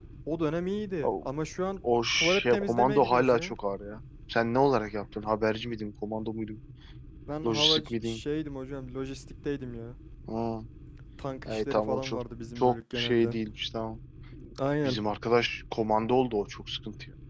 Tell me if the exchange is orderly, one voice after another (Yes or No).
No